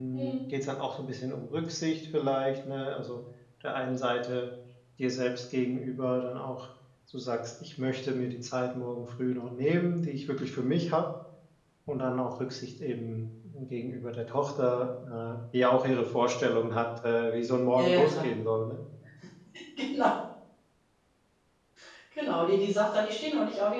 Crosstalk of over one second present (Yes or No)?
No